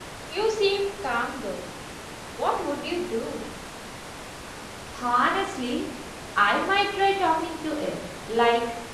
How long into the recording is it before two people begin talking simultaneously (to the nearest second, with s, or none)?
none